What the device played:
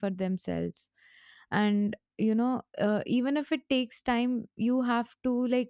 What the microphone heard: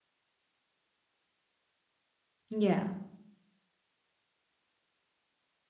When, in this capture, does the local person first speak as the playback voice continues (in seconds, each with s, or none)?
2.5 s